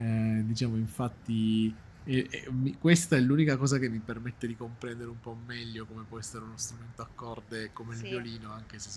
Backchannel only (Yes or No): Yes